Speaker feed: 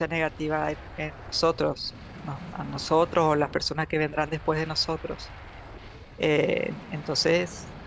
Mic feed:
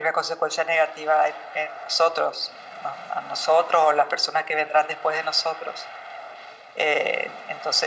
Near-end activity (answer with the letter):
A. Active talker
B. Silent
B